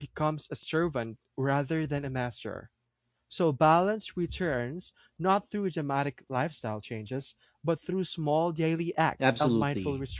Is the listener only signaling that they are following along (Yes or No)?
No